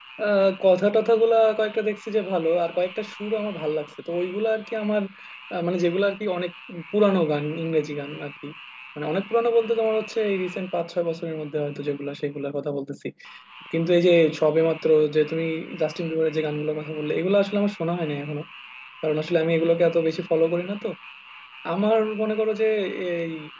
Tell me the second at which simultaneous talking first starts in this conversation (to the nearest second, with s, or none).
none